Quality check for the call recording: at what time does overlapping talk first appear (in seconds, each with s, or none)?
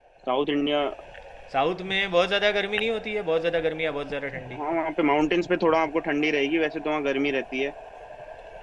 none